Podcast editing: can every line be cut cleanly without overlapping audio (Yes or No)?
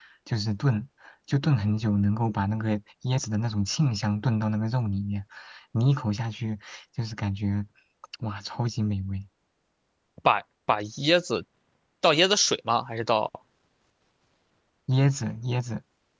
Yes